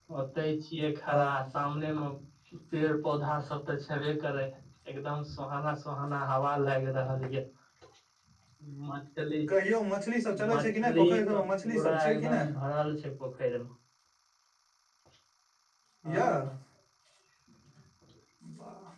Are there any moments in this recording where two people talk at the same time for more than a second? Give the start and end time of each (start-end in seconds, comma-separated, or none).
10.5-12.5